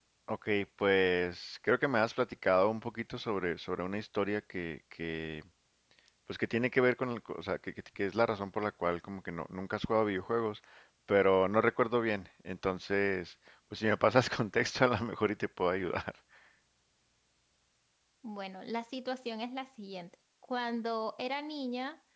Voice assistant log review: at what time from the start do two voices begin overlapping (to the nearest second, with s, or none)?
none